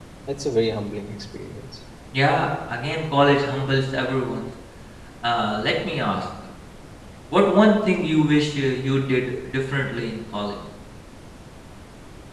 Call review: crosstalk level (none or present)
none